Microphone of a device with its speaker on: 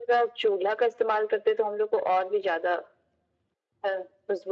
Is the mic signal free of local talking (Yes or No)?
Yes